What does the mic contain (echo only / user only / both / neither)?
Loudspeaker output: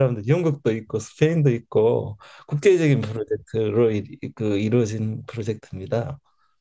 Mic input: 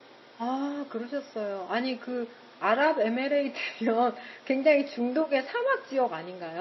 user only